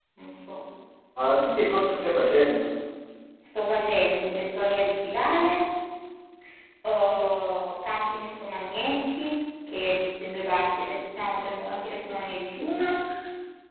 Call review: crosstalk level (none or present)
none